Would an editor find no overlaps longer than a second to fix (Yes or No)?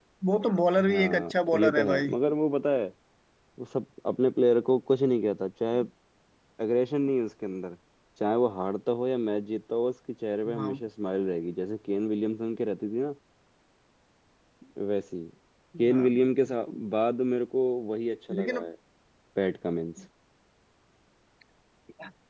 No